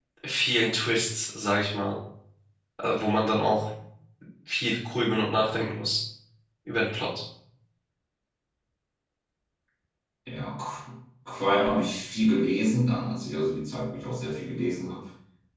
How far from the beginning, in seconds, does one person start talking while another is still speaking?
none

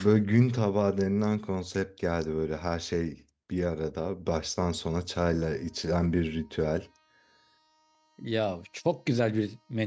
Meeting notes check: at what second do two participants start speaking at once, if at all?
none

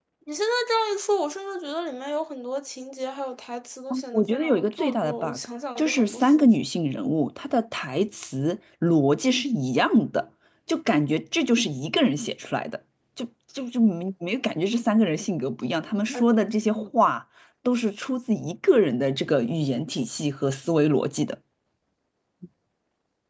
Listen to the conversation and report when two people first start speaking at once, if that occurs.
3.9 s

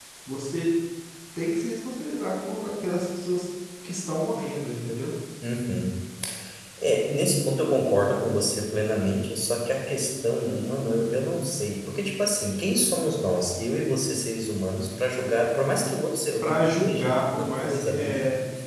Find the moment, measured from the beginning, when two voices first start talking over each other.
16.4 s

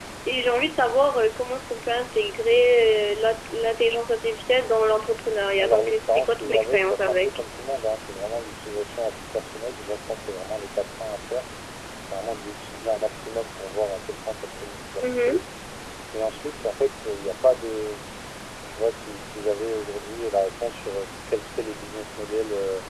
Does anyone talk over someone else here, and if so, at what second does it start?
5.6 s

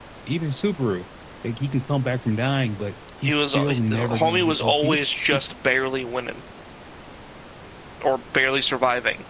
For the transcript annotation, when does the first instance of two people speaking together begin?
3.2 s

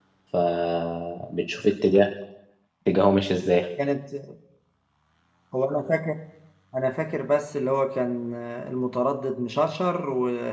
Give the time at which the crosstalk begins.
none

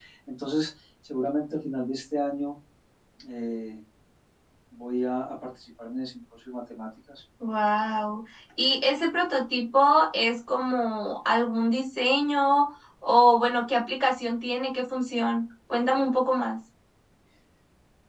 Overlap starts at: none

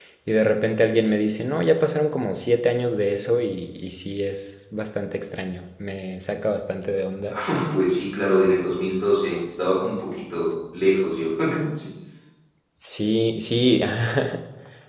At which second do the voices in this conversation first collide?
none

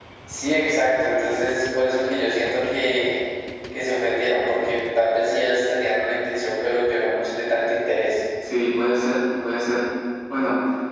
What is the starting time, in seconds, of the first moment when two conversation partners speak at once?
none

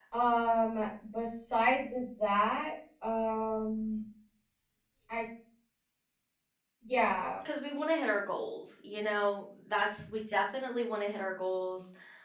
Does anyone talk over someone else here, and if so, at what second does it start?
none

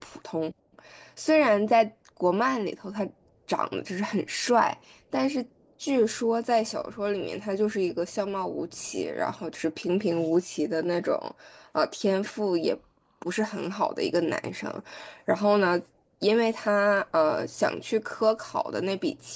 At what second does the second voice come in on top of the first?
none

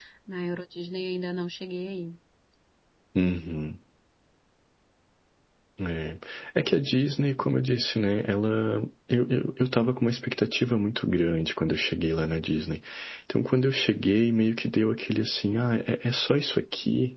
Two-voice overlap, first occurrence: none

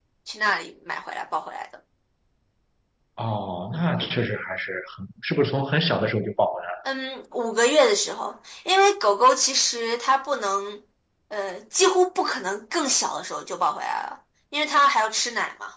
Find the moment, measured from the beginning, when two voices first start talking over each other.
none

